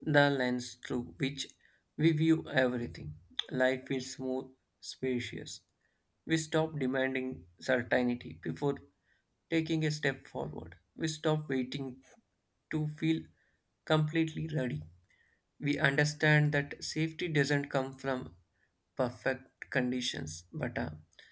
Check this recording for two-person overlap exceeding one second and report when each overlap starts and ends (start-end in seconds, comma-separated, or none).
none